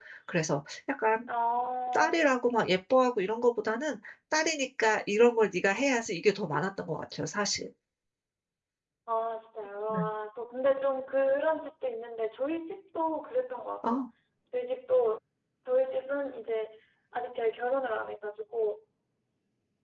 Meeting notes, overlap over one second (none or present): none